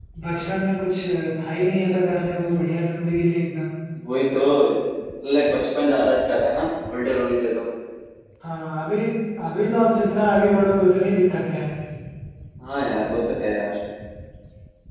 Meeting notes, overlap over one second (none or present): none